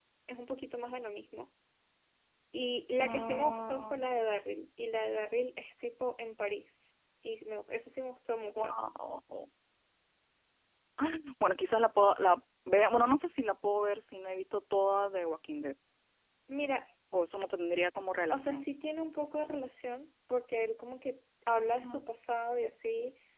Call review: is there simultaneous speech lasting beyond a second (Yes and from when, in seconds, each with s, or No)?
Yes, from 3.0 s